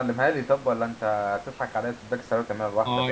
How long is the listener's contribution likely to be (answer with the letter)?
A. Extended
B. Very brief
A